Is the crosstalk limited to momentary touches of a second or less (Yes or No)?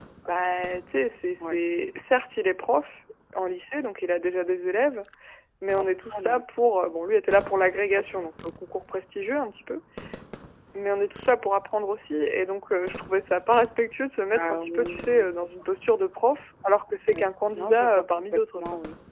No